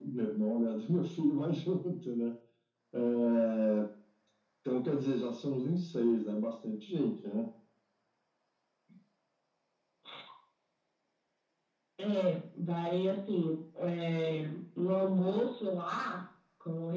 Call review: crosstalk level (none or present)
none